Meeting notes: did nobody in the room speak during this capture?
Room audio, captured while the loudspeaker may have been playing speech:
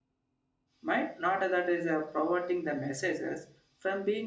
No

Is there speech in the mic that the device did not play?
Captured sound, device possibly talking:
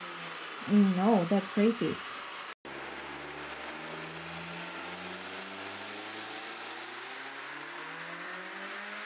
Yes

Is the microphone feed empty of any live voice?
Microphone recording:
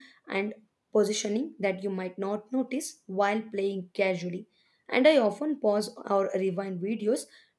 No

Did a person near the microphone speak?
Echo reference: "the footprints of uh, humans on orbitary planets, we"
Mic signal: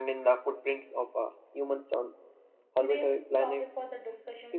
Yes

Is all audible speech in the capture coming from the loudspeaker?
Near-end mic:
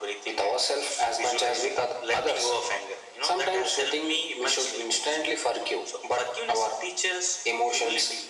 Yes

